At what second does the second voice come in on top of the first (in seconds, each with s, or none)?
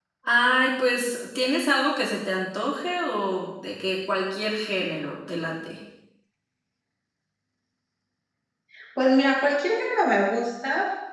none